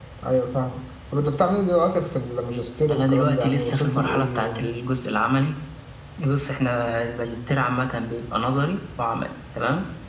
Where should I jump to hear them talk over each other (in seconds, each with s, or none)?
2.9 s